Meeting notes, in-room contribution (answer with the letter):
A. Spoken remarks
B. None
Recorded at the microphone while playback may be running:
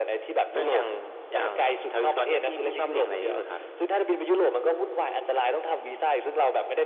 B